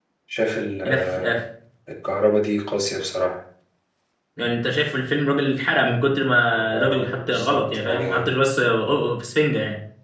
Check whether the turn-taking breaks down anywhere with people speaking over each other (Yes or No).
Yes